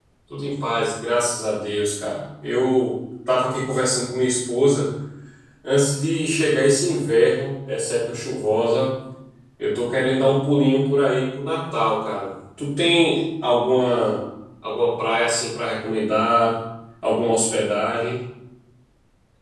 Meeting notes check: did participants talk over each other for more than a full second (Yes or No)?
No